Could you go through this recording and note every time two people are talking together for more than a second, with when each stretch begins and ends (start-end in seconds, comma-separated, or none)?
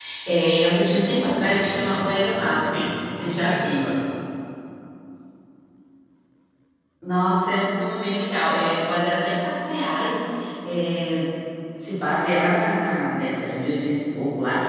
1.3-3.9